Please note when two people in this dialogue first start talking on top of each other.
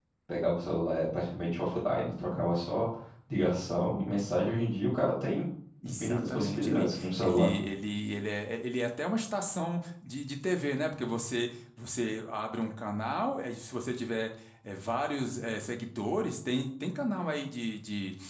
5.8 s

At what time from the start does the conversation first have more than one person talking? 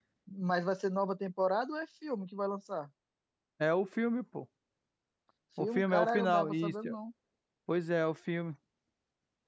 5.6 s

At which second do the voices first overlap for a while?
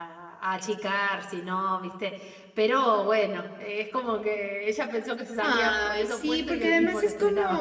5.4 s

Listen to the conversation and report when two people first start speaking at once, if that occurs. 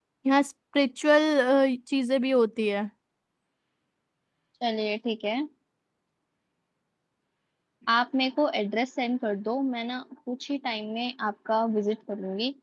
none

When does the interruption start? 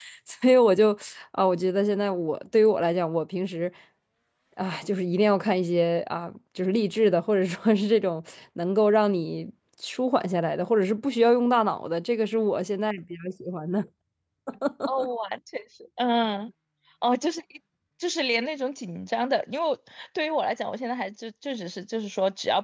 none

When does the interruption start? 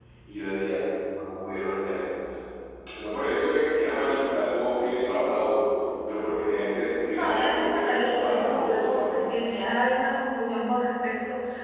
7.2 s

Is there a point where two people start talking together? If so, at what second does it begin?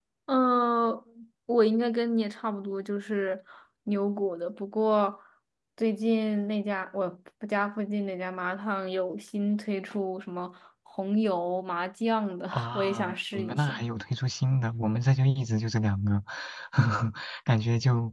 12.5 s

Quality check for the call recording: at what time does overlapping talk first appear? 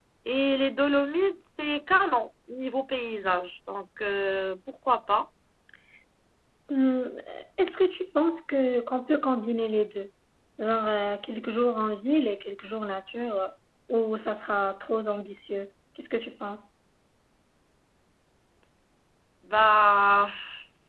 none

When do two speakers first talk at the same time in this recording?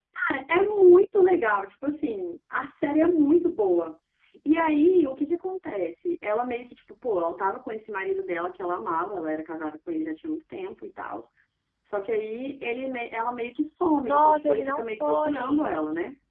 14.0 s

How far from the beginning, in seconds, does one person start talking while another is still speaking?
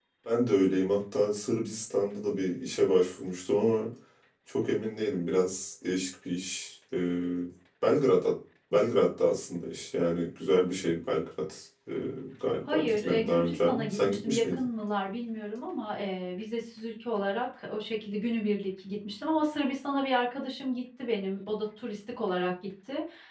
12.7 s

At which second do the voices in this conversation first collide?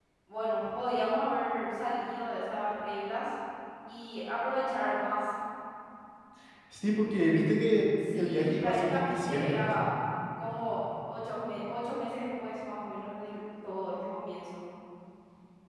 8.0 s

